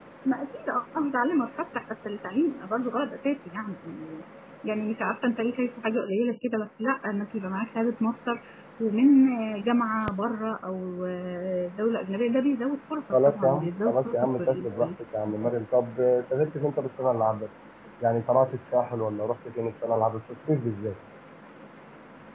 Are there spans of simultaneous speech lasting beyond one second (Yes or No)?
Yes